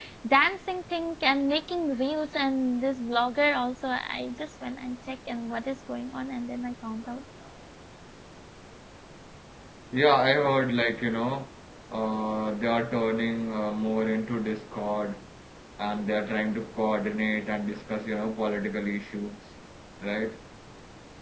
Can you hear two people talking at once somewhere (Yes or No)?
No